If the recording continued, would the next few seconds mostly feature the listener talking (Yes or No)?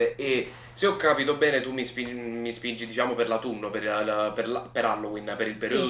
Yes